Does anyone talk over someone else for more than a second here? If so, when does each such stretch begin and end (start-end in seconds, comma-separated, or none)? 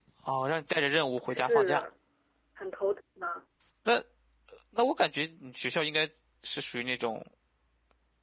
none